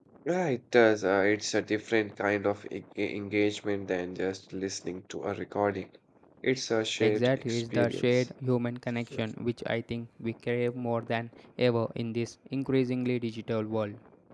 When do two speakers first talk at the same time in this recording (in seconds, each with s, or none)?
7.0 s